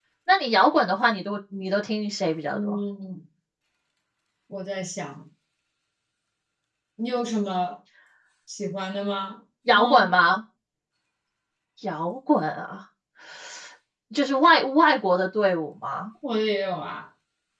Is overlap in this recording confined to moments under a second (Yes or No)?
Yes